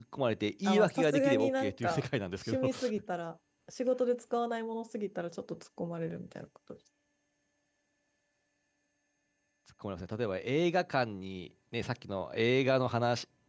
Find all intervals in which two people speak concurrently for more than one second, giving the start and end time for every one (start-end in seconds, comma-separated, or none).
0.7-2.0